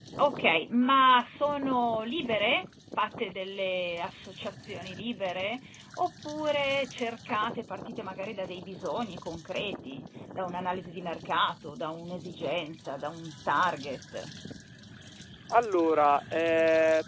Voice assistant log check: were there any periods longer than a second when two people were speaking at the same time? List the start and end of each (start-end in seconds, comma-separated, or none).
none